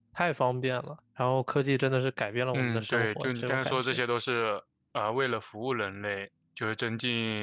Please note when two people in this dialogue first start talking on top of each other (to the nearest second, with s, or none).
3 s